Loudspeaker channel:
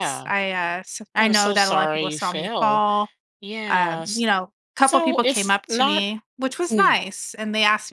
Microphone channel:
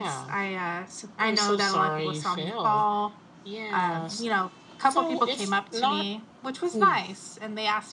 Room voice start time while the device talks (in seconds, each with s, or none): none